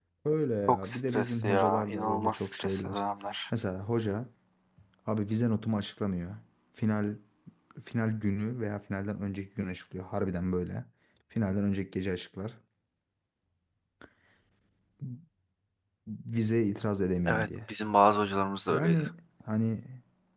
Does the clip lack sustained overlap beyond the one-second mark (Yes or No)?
No